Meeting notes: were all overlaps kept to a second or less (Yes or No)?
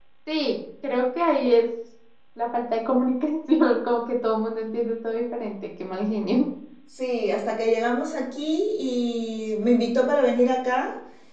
Yes